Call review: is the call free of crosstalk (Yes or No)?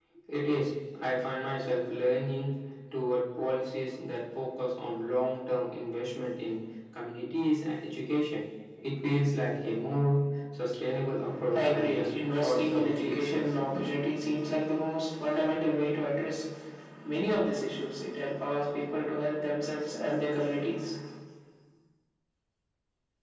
No